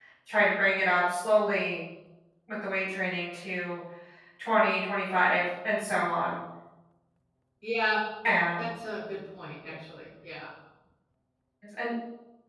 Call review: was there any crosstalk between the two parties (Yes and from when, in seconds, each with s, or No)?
No